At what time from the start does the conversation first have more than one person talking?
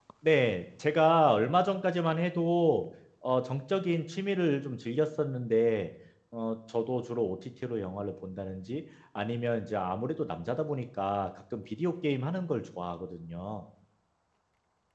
none

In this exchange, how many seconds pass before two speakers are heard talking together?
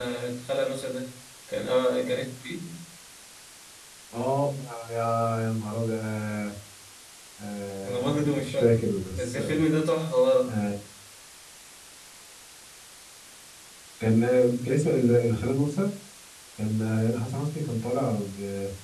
7.8 s

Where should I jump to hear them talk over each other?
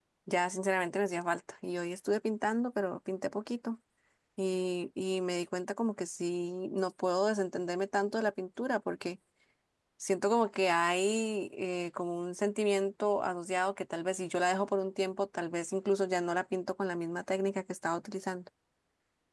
none

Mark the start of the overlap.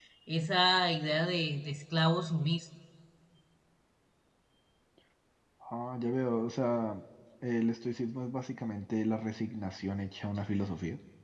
none

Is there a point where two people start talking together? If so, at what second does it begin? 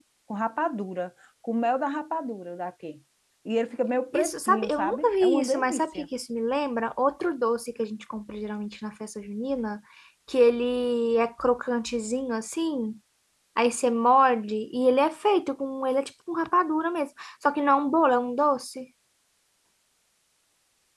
4.1 s

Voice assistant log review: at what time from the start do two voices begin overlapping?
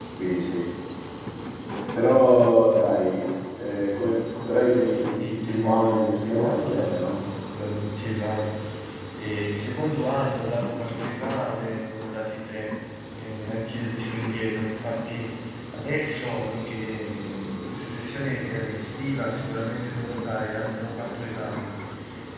5.2 s

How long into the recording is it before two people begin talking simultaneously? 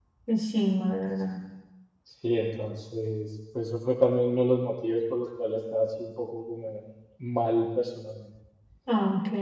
none

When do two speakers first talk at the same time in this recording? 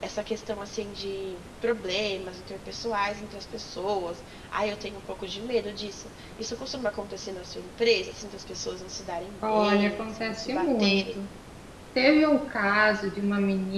9.4 s

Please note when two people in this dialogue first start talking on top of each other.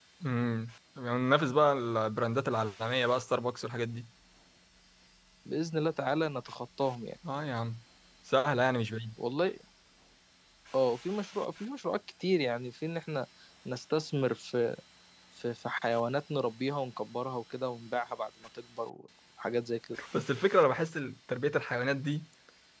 none

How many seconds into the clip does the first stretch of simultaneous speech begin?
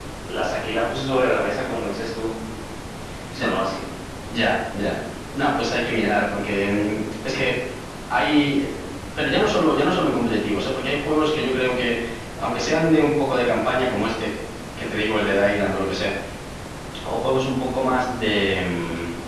none

